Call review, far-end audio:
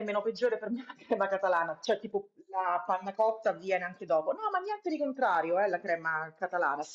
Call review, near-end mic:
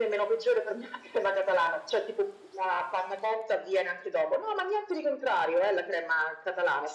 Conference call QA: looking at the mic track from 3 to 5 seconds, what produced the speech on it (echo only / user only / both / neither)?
echo only